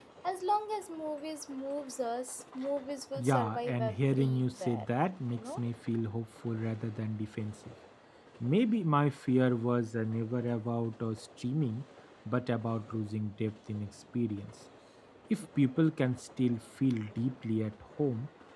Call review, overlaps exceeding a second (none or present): present